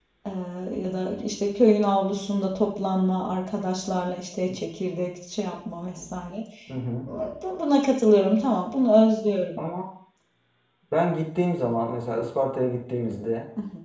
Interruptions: none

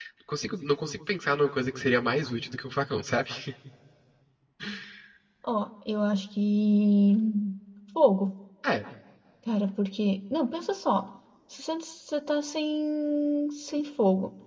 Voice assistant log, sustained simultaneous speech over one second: none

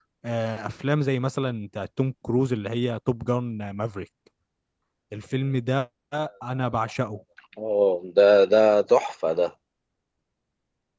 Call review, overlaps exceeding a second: none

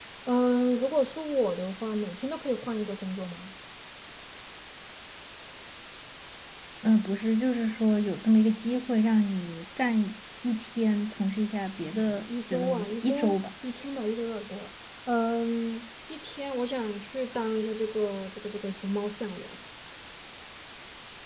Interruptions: present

